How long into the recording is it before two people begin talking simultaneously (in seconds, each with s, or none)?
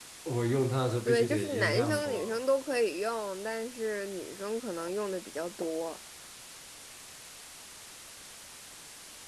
1.0 s